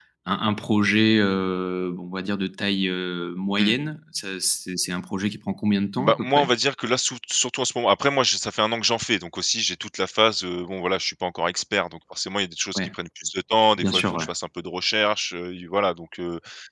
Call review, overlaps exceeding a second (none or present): none